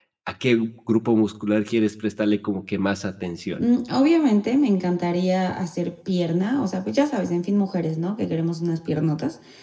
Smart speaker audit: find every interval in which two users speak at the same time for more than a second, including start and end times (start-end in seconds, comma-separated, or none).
none